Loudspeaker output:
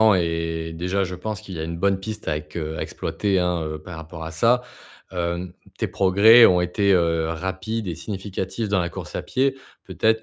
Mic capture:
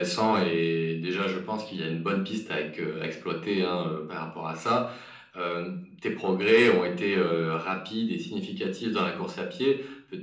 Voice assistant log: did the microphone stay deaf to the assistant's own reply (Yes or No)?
No